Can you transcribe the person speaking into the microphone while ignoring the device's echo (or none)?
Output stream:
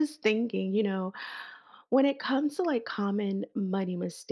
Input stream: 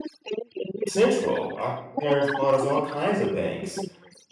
central. Our parents bought us all kinds of banks